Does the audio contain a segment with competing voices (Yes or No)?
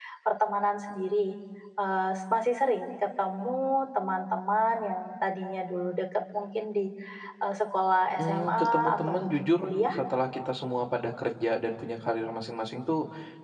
Yes